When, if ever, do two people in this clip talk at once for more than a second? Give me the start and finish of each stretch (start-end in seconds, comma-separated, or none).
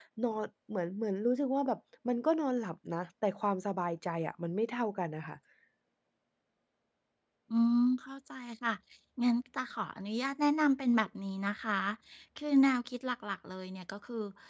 none